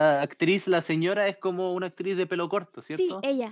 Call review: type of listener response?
taking over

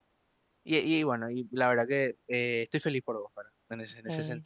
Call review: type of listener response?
listening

